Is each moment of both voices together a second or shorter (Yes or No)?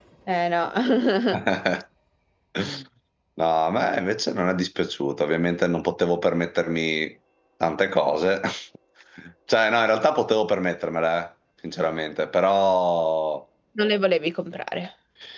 Yes